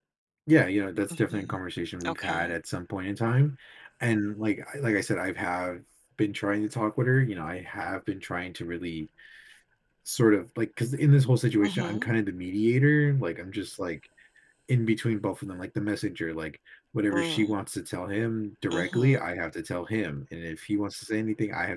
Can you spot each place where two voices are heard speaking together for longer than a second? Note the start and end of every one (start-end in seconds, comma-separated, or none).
none